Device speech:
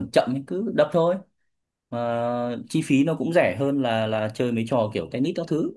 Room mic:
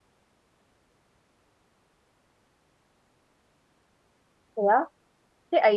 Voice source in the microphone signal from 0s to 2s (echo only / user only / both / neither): neither